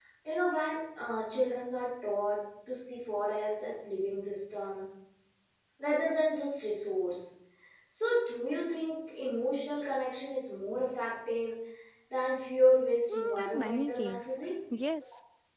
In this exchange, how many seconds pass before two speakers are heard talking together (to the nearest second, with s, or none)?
13 s